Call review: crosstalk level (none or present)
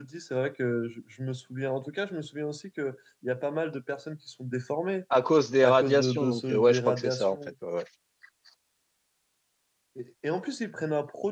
present